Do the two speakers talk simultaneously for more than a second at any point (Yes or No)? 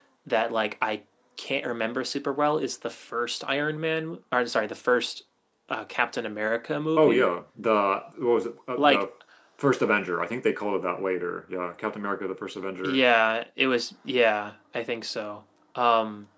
No